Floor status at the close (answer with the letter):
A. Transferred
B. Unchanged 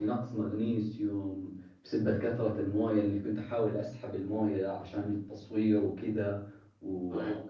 B